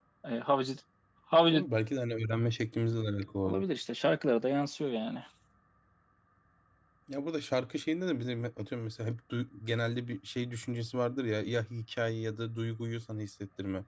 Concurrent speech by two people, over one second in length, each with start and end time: none

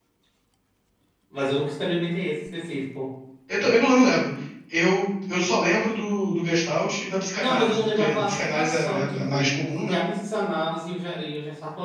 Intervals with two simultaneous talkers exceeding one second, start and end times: 7.4-10.0

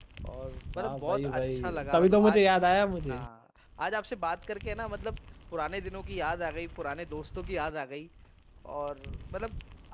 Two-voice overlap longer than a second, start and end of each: 0.8-2.4

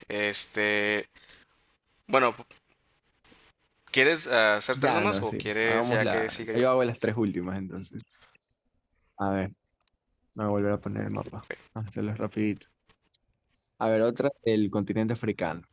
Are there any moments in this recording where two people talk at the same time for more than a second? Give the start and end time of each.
4.7-6.6

